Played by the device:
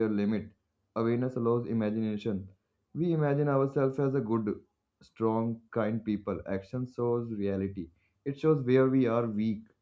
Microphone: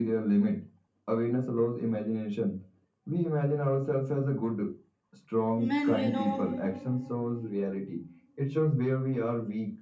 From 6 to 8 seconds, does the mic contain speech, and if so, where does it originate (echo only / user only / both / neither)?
both